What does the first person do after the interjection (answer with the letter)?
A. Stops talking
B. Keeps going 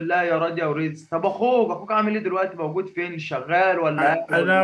A